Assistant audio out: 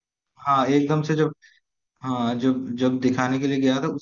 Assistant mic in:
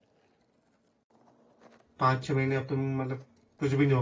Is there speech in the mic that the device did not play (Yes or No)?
Yes